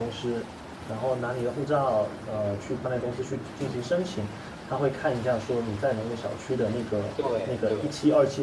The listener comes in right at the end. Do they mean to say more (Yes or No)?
No